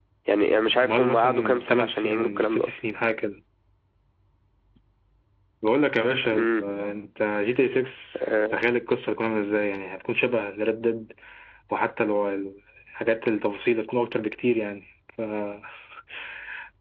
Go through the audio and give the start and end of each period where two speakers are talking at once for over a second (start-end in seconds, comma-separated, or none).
0.8-2.7